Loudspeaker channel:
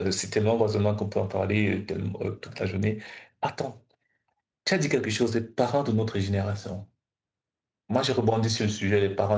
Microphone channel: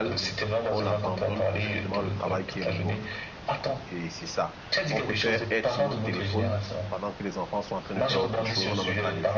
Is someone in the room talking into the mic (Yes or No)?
Yes